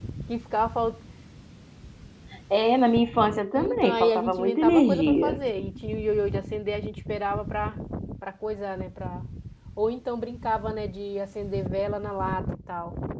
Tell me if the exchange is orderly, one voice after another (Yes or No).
No